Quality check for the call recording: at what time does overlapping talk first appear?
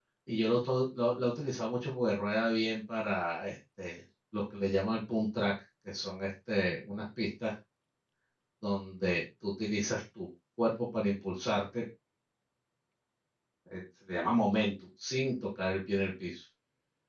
none

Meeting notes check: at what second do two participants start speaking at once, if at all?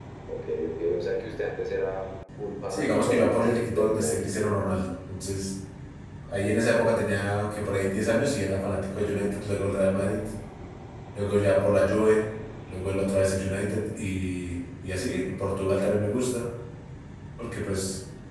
2.7 s

